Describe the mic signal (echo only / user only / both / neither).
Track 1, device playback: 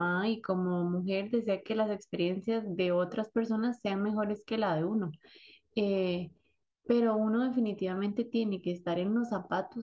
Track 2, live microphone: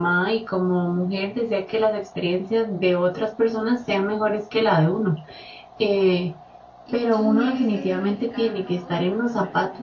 both